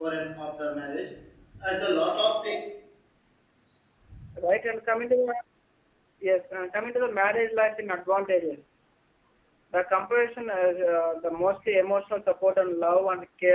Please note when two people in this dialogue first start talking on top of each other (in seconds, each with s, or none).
none